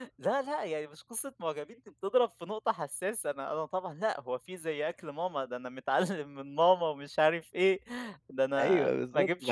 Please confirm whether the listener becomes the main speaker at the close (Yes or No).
Yes